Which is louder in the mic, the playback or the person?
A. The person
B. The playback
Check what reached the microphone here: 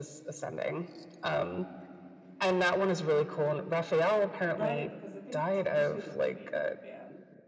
B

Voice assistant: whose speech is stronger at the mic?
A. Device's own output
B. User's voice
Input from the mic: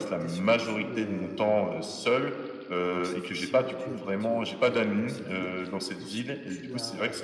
A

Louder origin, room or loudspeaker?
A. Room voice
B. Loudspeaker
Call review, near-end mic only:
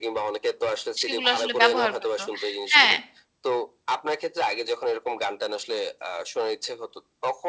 A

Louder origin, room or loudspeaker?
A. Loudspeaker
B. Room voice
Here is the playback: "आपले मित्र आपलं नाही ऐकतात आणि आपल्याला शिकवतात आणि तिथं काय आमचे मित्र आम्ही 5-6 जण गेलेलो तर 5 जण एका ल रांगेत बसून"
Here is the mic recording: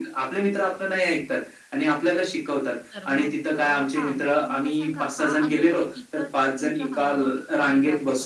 A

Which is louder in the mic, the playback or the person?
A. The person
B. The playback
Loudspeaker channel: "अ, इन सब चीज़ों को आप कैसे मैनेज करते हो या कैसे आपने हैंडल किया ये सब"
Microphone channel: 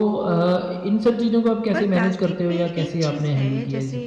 B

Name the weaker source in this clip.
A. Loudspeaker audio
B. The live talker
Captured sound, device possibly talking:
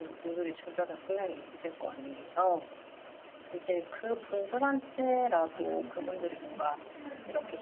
B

